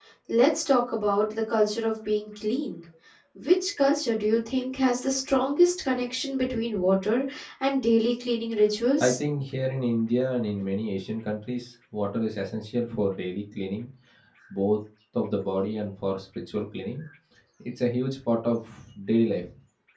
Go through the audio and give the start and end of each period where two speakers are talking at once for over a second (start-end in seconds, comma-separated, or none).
none